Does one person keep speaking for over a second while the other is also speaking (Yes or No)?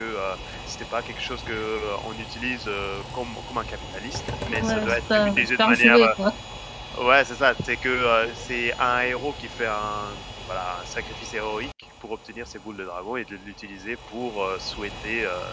Yes